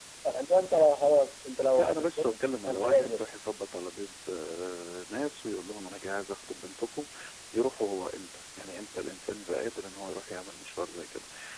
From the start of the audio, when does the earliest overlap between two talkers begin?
2 s

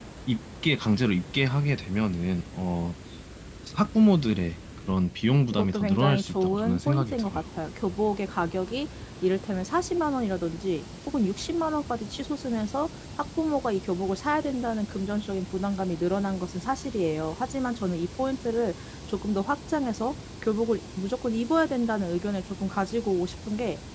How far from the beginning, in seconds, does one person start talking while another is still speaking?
6 s

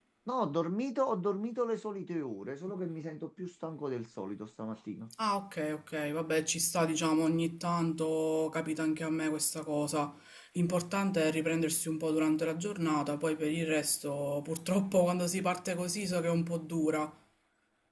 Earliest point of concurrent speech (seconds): none

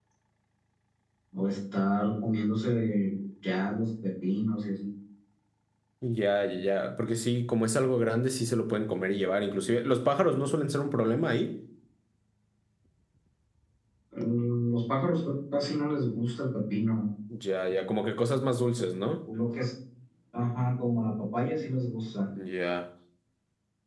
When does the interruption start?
none

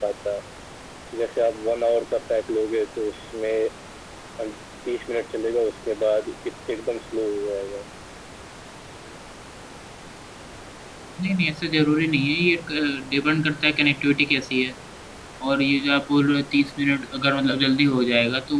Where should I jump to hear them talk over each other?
none

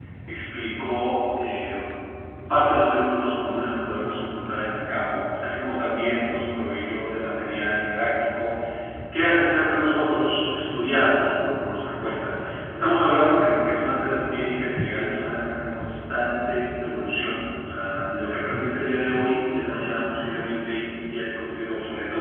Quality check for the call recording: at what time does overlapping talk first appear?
none

